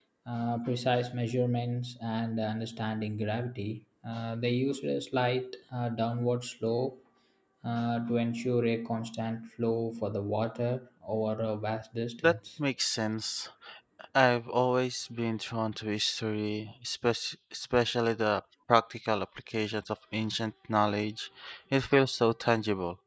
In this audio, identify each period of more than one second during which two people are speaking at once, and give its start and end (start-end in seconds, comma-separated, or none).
none